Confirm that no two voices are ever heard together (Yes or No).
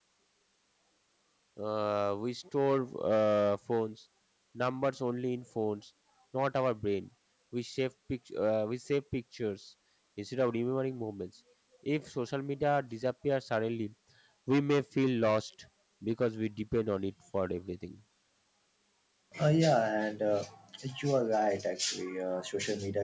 Yes